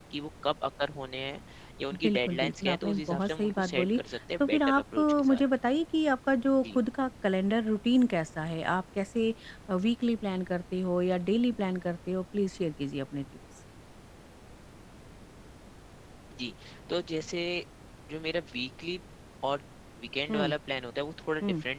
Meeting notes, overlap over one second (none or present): present